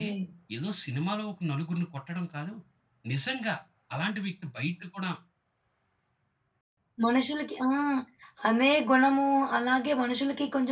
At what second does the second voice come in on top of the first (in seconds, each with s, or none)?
none